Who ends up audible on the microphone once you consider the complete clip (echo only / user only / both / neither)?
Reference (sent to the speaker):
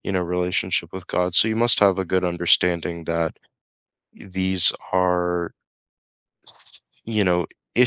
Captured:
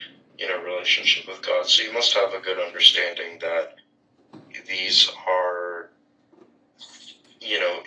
echo only